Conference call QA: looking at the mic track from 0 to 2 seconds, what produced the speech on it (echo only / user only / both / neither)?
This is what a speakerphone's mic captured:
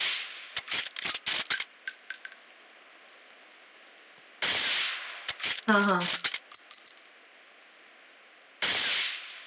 neither